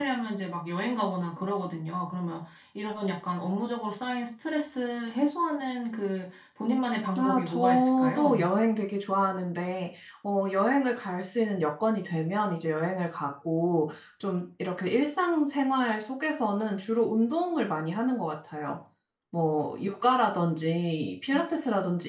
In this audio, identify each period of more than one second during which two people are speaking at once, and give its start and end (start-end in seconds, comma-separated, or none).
7.2-8.5